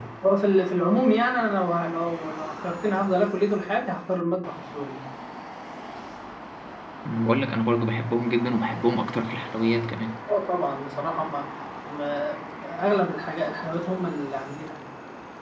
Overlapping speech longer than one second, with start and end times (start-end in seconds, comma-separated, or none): none